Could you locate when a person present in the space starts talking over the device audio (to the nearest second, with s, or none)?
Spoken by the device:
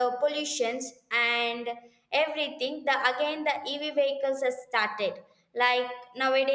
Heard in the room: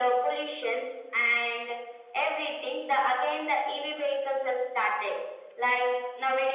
none